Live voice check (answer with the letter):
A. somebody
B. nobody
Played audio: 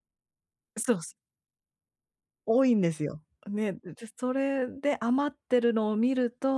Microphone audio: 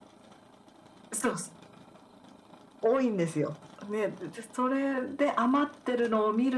B